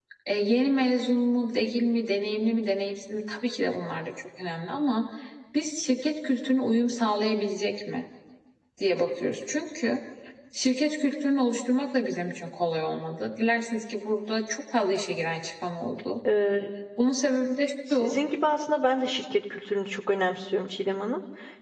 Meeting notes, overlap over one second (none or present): none